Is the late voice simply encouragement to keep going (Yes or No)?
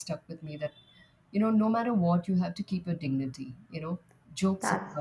Yes